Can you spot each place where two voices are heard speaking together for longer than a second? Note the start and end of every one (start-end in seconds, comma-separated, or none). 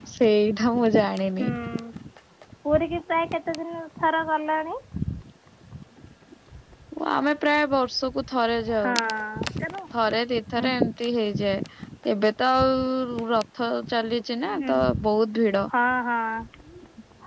none